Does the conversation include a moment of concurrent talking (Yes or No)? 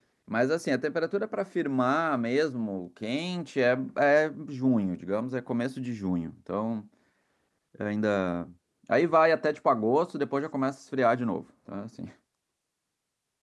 No